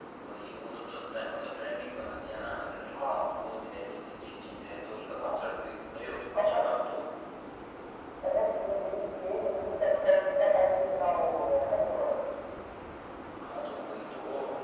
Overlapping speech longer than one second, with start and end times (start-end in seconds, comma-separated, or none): none